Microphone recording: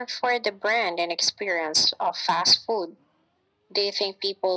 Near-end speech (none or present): none